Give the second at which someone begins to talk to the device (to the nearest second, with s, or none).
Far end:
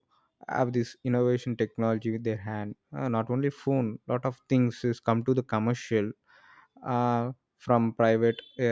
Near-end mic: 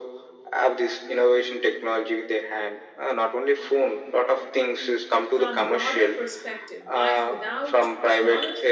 5 s